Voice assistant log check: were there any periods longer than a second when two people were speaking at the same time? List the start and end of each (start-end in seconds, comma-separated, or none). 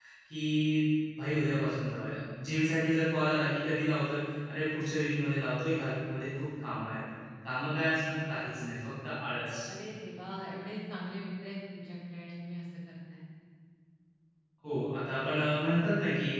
none